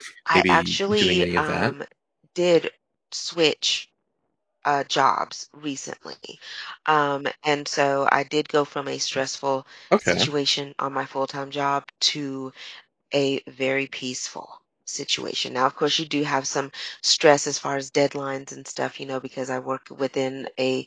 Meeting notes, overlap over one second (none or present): present